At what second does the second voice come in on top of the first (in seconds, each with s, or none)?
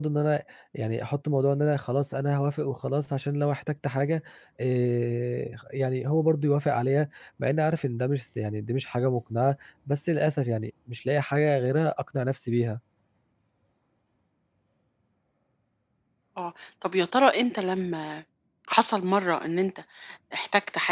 none